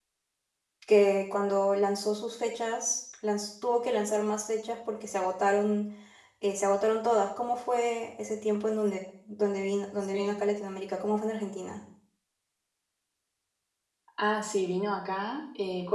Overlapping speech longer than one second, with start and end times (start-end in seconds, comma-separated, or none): none